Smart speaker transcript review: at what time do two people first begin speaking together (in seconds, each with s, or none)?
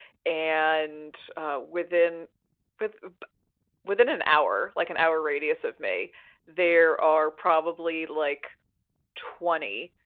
none